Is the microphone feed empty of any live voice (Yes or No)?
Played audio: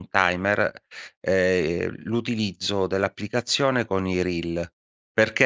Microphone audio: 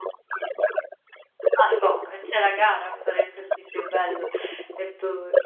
No